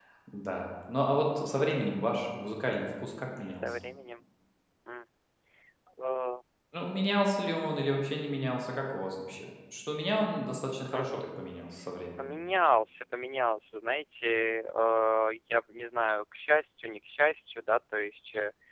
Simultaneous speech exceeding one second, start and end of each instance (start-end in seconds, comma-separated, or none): none